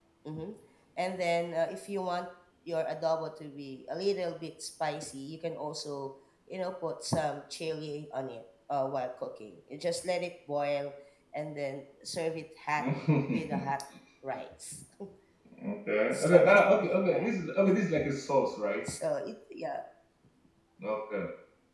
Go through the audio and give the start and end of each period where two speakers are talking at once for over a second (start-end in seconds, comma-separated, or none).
16.1-17.3